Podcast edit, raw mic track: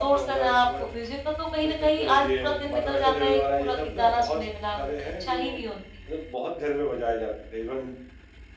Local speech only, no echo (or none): none